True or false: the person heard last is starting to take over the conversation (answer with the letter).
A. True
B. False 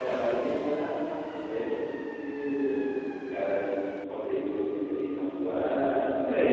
A